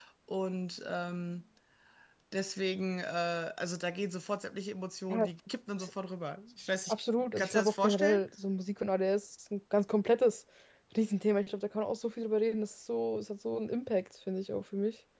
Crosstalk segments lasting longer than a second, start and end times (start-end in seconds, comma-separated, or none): 6.9-8.2